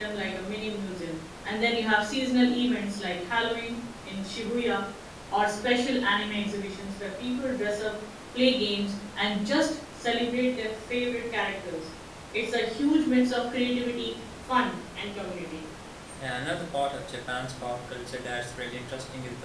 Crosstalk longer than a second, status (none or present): none